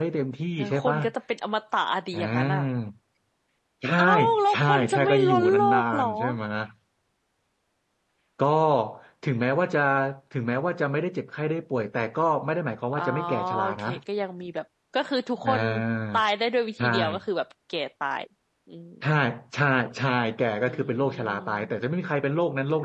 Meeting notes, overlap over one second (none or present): present